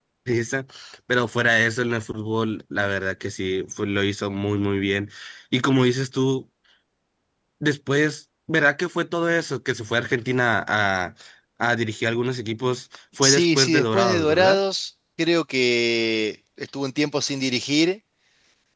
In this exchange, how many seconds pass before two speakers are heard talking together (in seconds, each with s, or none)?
13.2 s